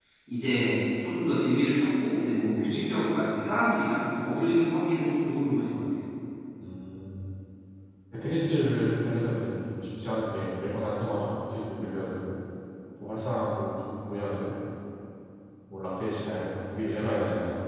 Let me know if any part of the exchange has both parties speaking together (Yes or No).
No